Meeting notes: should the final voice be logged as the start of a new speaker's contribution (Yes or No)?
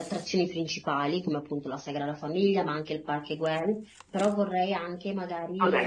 Yes